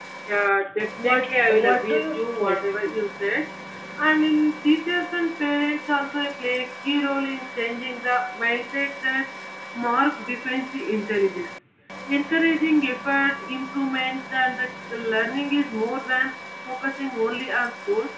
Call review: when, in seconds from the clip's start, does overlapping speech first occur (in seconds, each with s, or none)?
1.0 s